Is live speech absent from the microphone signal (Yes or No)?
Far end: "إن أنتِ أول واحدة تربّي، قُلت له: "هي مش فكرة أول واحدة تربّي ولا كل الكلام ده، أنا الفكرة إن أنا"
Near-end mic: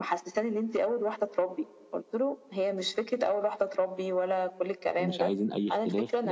No